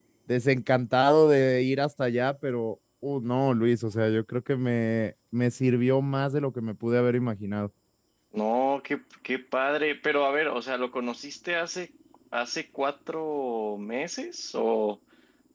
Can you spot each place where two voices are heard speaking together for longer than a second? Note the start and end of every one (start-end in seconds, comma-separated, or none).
none